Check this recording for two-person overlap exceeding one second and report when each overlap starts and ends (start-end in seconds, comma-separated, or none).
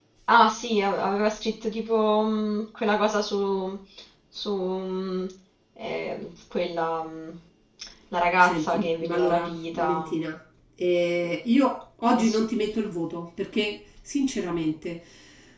8.4-10.1